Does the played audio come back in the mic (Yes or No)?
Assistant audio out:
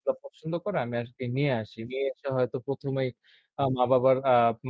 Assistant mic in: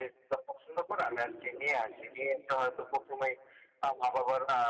Yes